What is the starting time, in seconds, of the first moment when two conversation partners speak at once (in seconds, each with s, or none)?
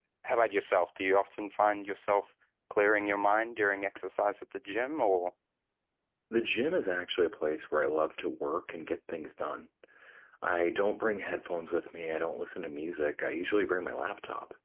none